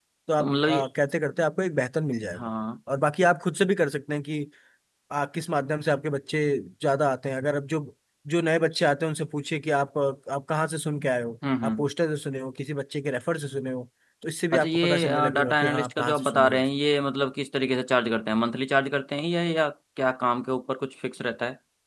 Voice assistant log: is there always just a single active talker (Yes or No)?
No